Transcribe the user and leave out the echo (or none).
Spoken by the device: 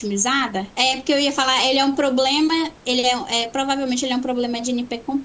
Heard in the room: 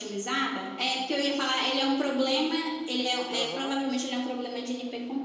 Aham,